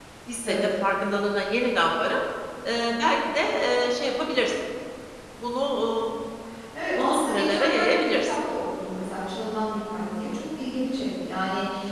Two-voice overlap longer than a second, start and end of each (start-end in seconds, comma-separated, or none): 7.0-8.3